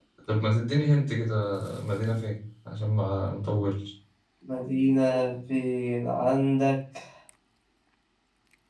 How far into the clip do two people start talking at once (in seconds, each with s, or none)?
none